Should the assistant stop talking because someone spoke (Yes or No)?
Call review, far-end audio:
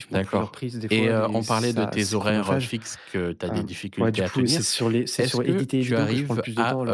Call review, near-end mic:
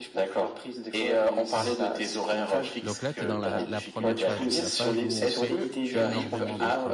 Yes